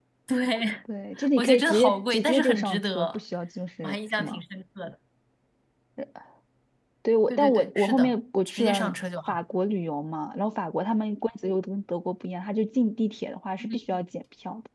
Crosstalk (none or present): present